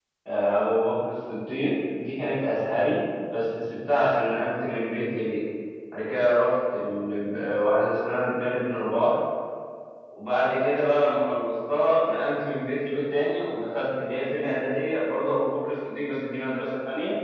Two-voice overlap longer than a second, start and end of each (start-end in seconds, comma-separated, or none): none